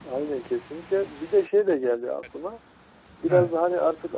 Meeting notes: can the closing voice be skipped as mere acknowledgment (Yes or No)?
Yes